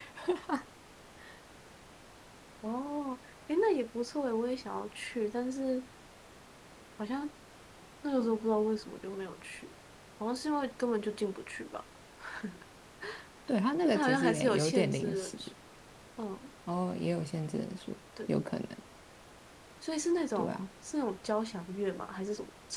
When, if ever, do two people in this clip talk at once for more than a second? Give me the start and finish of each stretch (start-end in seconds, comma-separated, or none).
13.8-15.3